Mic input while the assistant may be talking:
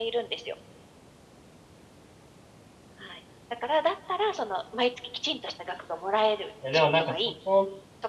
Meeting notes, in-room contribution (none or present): present